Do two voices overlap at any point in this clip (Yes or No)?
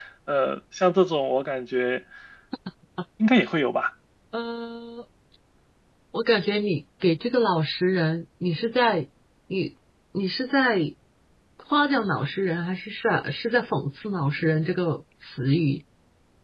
No